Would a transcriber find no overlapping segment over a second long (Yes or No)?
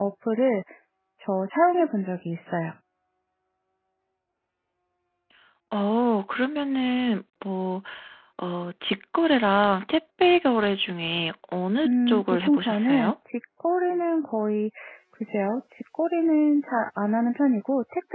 No